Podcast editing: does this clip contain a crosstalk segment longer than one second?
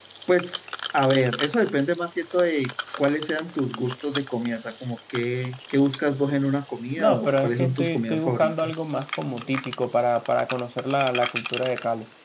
Yes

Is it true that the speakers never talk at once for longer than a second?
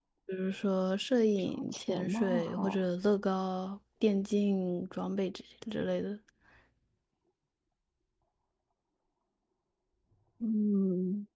No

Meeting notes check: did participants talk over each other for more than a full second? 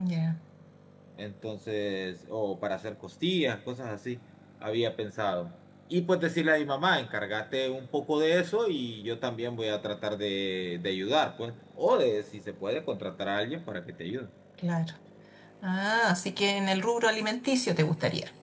No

